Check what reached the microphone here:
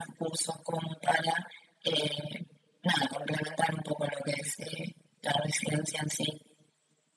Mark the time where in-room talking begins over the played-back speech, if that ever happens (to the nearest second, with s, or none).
none